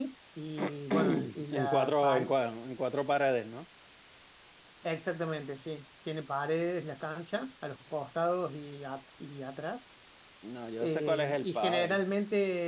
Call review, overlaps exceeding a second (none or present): present